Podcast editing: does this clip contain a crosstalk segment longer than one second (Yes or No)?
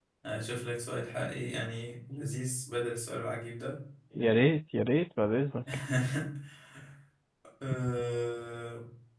No